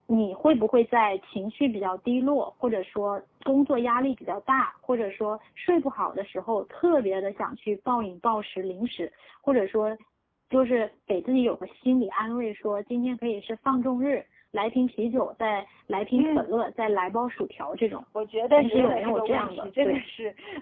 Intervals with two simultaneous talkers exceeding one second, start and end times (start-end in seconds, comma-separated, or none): 18.5-20.0